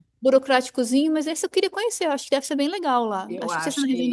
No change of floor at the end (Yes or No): No